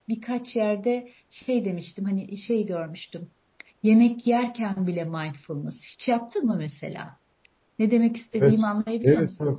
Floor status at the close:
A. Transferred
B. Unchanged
A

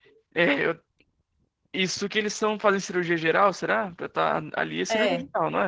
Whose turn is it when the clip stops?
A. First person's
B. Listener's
B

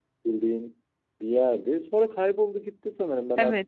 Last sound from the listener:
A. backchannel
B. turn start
B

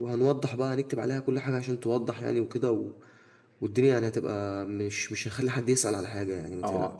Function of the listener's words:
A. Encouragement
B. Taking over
B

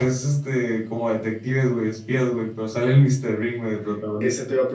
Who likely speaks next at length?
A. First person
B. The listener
B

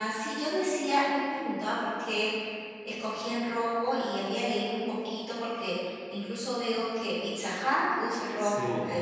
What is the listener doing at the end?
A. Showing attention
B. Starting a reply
A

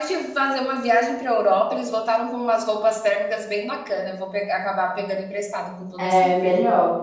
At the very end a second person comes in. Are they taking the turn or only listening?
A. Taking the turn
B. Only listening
A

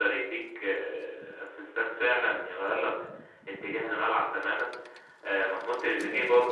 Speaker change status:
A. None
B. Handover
A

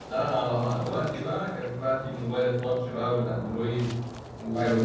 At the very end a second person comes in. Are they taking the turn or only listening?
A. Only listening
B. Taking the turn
A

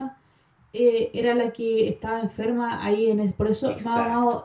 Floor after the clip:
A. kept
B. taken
A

